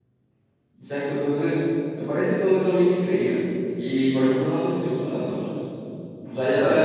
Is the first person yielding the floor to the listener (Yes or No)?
No